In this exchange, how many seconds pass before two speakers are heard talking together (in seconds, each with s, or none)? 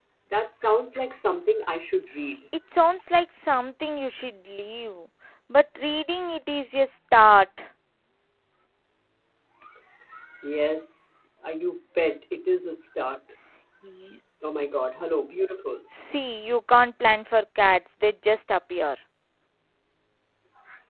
none